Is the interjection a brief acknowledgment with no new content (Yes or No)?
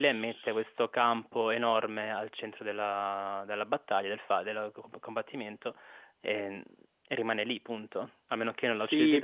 No